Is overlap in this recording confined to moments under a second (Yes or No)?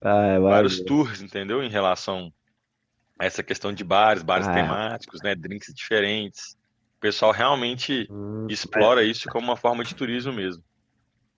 Yes